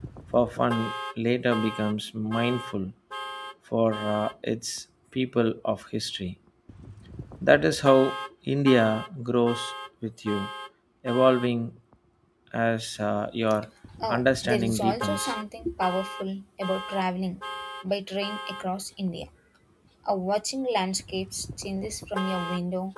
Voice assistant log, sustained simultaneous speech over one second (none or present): present